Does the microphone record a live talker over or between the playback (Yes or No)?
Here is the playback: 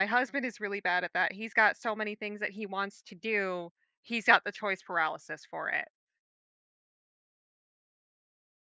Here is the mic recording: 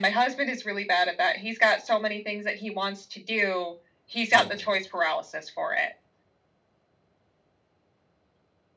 Yes